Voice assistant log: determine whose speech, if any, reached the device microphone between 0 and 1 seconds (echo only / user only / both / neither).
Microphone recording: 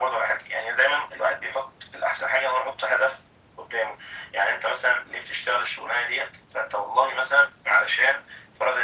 echo only